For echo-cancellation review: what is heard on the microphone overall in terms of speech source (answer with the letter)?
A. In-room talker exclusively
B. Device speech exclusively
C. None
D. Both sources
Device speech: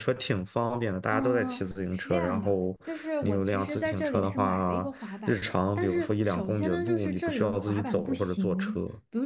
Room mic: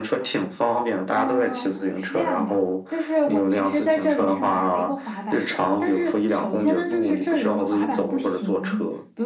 B